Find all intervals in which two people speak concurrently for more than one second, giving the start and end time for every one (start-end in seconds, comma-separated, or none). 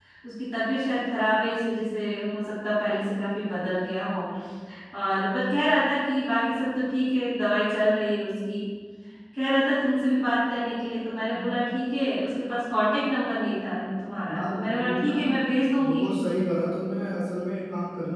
13.8-15.2